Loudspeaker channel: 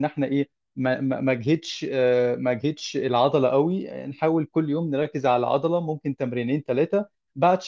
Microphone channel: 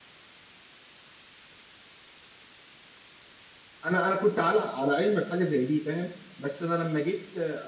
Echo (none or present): none